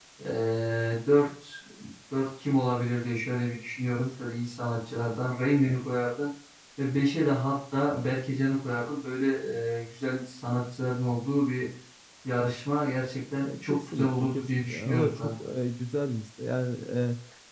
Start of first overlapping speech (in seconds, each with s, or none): 13.4 s